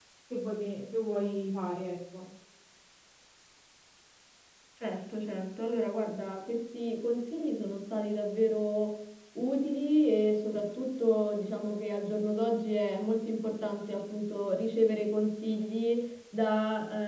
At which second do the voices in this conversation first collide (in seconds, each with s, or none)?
none